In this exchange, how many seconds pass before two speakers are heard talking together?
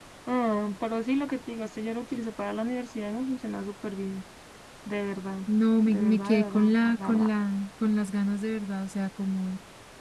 5.8 s

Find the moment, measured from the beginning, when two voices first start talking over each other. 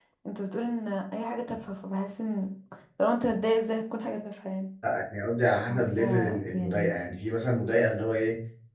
5.7 s

